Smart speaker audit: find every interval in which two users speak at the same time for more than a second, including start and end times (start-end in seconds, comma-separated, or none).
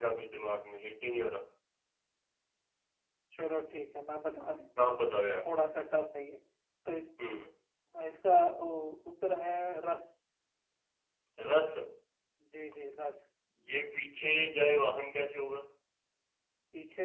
none